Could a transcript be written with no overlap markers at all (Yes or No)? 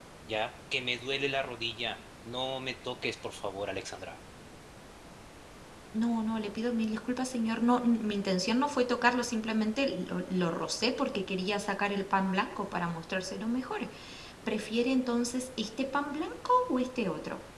Yes